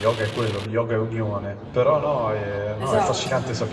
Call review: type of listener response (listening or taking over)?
listening